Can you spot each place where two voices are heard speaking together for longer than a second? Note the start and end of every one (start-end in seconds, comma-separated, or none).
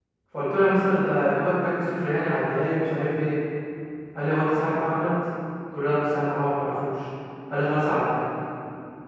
none